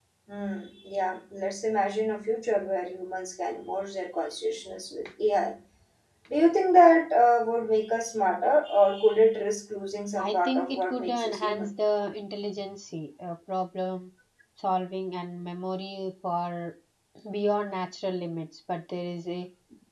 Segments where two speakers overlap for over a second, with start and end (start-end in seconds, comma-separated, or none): 10.2-11.7